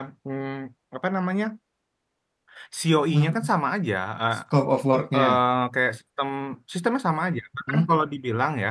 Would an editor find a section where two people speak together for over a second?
No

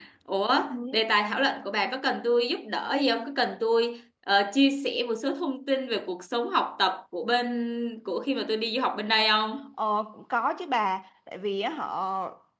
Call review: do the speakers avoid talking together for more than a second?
Yes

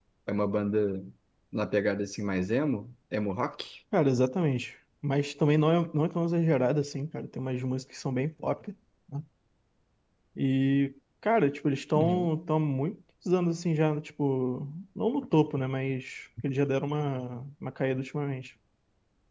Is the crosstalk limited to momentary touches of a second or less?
Yes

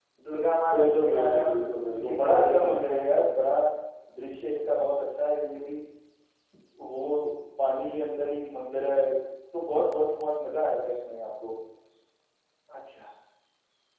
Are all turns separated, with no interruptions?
No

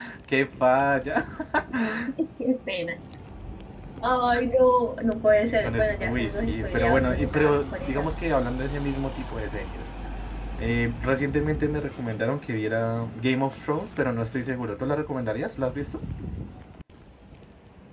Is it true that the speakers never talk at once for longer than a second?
No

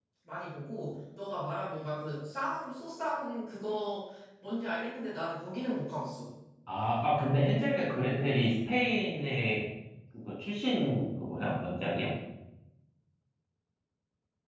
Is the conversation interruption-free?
Yes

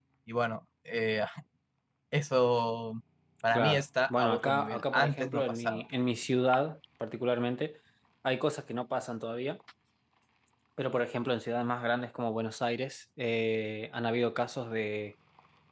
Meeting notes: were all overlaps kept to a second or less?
No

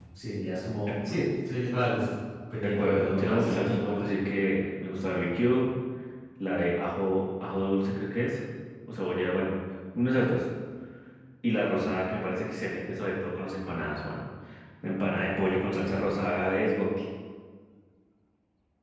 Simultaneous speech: Yes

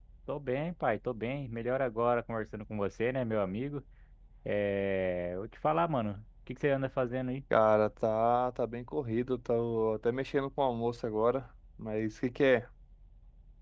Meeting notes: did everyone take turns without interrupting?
Yes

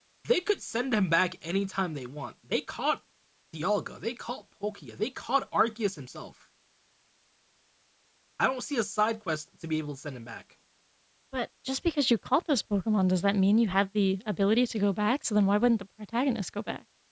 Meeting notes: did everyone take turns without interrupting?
Yes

